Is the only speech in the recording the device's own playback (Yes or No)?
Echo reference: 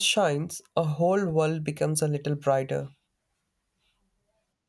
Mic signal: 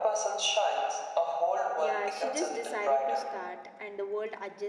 No